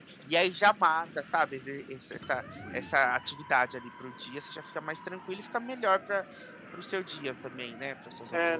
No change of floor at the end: No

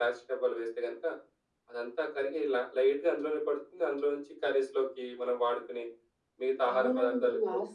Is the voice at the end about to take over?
Yes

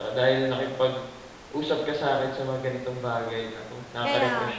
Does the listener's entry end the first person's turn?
Yes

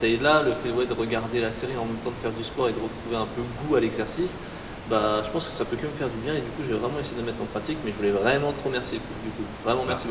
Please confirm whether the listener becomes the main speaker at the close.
Yes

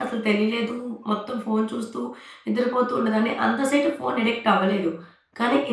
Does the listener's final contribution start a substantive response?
Yes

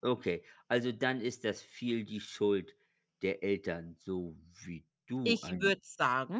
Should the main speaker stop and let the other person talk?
Yes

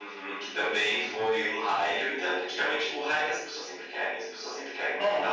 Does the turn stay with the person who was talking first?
Yes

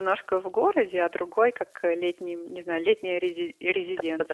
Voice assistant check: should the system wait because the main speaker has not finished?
No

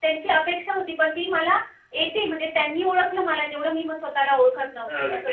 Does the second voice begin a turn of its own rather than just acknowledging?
Yes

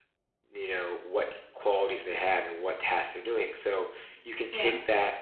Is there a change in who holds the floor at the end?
No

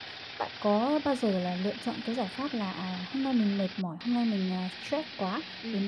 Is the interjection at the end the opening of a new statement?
No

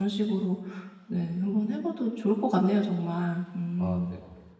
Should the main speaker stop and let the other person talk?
Yes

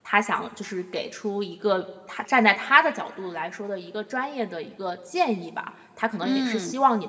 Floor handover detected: No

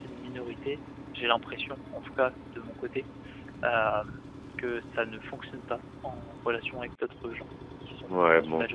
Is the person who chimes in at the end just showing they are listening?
No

